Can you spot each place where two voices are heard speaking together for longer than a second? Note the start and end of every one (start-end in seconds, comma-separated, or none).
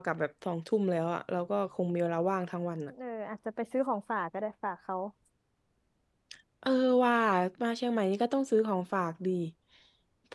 none